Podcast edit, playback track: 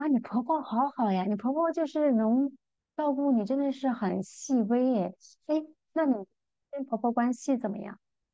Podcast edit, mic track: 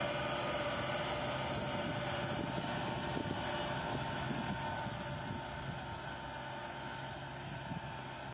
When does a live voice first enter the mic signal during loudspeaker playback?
none

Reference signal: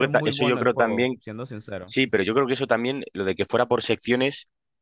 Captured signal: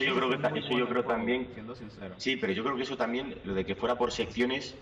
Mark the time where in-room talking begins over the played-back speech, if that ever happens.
none

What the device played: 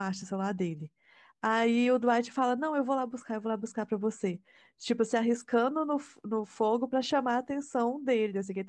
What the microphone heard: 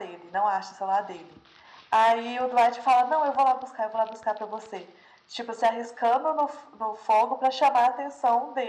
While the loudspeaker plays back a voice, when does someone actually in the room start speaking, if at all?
none

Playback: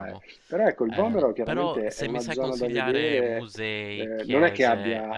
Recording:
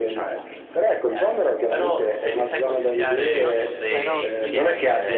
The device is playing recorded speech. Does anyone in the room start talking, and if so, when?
3.3 s

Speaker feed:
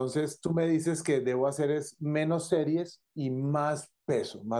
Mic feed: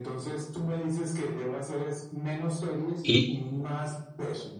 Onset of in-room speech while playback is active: 3.0 s

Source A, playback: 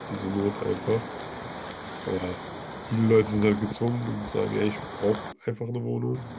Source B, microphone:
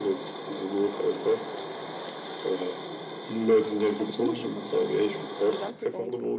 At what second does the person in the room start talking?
3.8 s

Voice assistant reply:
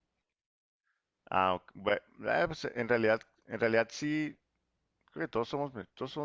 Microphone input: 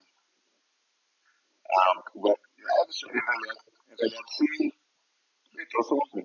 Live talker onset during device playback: none

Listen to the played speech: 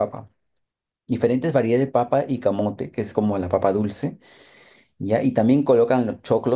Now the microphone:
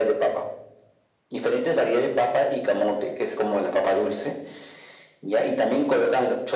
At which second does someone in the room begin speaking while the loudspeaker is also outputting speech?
none

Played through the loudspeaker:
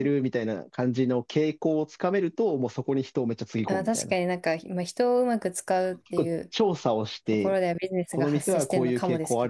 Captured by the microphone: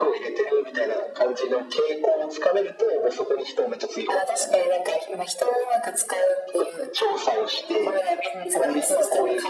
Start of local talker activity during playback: none

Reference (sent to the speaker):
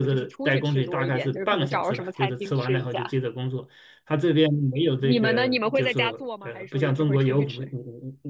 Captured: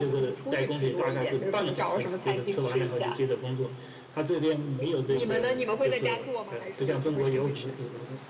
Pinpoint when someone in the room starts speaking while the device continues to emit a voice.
none

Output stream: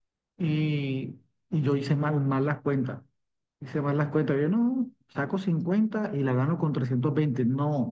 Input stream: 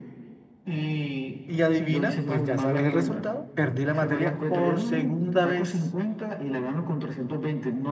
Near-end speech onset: 1.5 s

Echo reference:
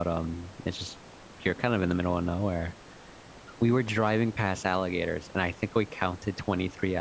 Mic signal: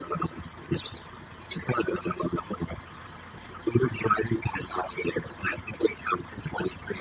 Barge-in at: none

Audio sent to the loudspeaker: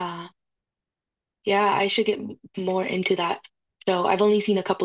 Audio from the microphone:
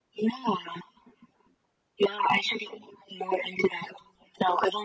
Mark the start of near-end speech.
none

